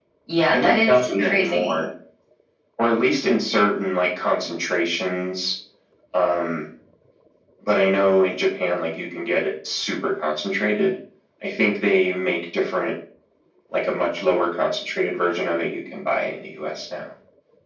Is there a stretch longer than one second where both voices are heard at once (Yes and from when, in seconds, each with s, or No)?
Yes, from 0.5 s